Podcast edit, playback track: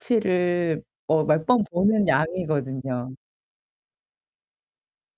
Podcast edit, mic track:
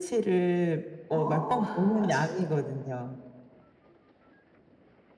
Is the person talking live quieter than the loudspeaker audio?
Yes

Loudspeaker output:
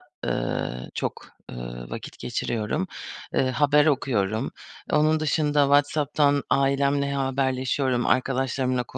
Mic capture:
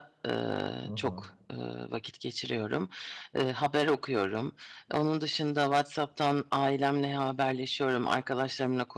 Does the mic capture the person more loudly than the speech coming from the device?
No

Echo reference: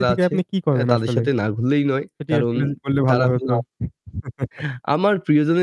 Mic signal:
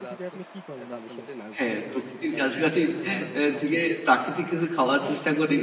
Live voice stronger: Yes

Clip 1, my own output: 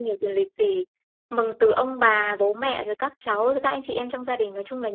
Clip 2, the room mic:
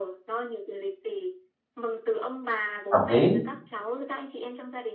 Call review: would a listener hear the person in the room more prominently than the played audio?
Yes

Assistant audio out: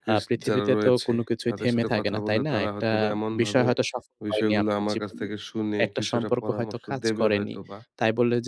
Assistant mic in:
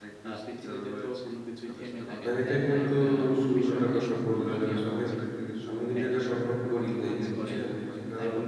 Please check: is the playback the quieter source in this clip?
Yes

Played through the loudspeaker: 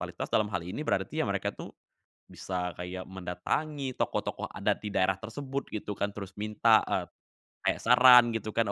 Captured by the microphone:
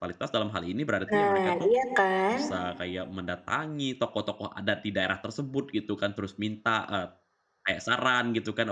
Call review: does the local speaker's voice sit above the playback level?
Yes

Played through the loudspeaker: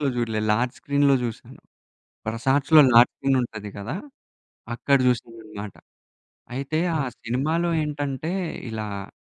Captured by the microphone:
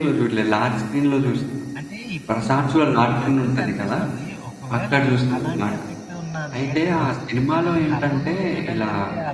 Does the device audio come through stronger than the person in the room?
Yes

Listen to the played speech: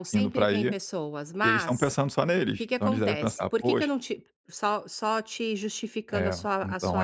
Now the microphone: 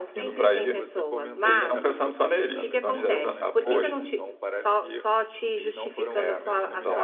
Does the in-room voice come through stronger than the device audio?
No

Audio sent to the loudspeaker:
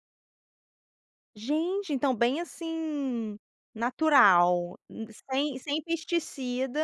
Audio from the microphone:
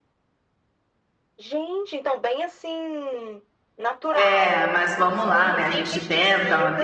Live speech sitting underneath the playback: No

